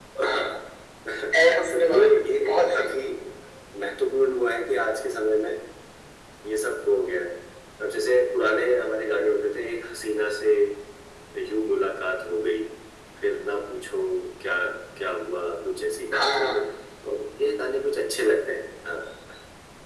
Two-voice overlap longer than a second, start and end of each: 1.4-3.0

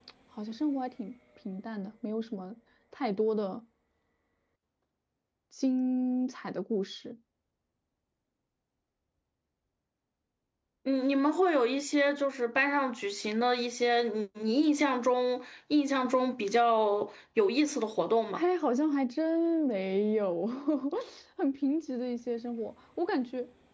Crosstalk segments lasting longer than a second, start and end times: none

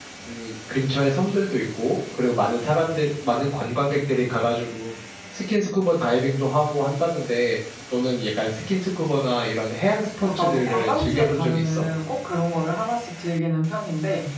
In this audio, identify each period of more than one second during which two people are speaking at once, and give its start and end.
10.2-11.8

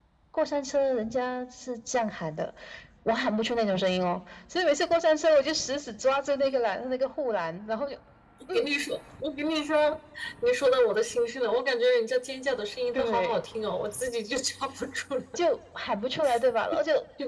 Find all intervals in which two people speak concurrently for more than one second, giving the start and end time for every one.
none

